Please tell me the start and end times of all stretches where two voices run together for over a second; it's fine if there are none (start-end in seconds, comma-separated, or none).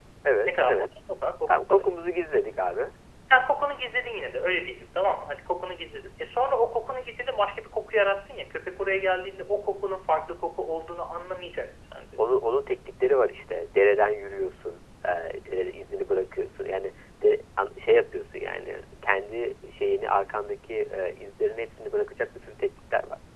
none